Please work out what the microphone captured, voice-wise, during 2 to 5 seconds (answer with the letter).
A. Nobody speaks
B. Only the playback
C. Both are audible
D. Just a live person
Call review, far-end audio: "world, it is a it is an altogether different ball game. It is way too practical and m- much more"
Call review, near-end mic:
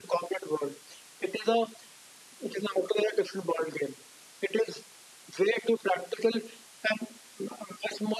B